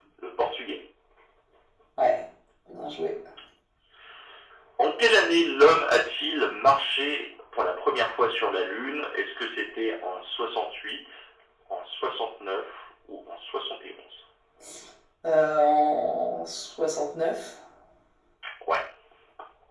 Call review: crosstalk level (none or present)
none